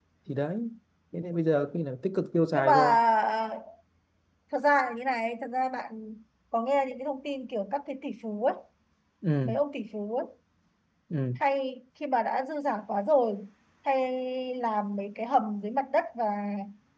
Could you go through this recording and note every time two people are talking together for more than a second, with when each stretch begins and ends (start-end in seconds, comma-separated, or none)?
none